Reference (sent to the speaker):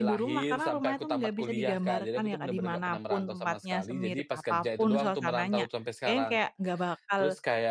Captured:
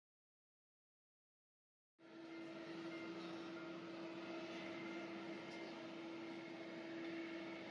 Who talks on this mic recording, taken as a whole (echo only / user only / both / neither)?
neither